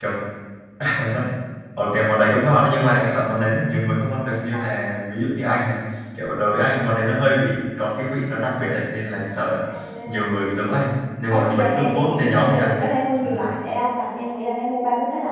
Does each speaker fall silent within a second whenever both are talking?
No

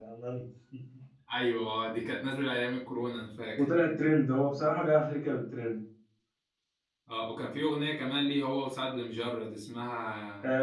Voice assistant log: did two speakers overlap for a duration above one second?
No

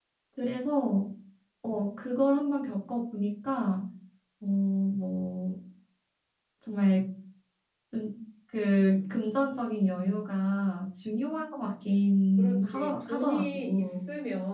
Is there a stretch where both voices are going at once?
Yes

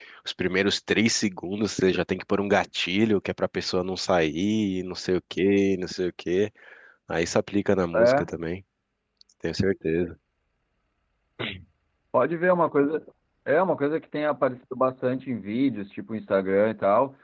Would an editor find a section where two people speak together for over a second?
No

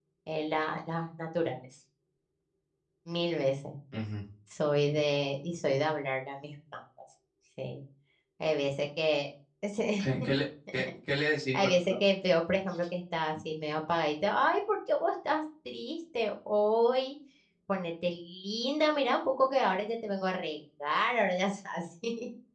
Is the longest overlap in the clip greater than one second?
No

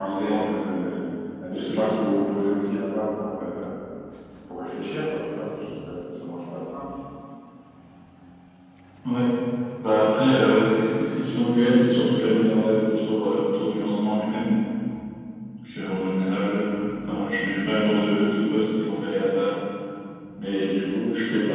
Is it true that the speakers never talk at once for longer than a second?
Yes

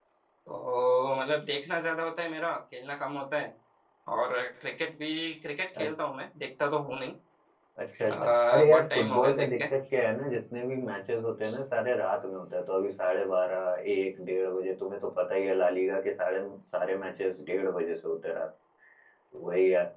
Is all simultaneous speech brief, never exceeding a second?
No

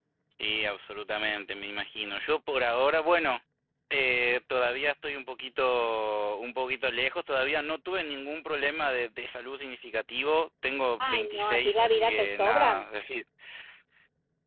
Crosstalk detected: Yes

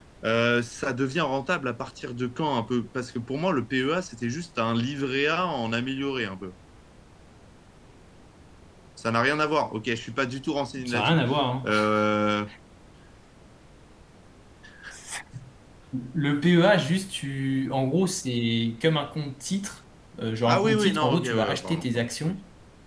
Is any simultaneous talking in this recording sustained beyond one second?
Yes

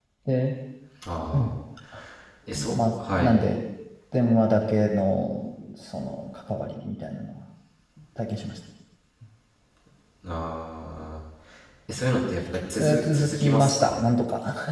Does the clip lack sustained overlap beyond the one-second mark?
No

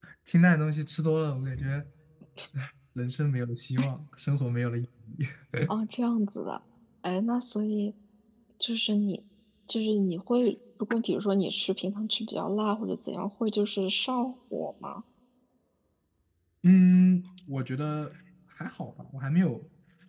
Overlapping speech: No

